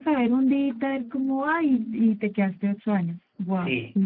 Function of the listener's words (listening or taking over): taking over